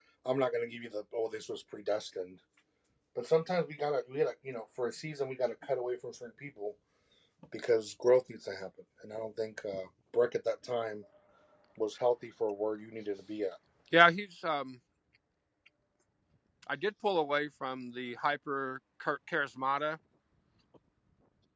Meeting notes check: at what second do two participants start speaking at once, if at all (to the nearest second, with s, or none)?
none